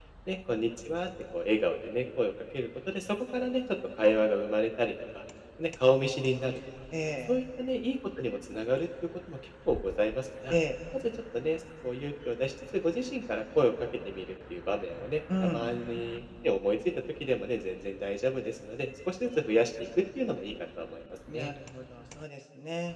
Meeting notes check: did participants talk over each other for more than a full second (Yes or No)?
No